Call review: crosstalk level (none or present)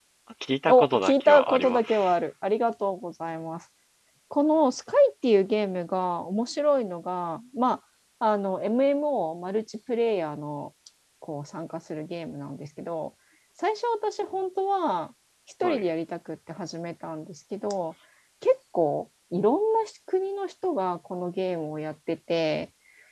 present